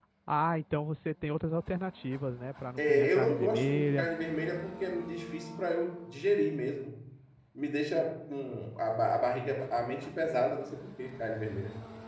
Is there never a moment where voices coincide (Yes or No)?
No